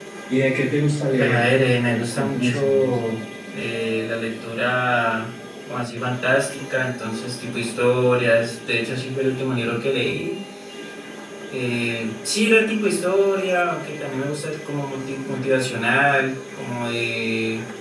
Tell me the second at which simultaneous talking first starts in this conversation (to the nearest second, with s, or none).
1 s